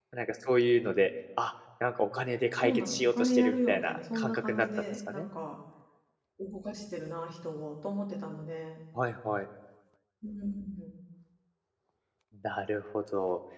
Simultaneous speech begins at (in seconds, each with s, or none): 2.6 s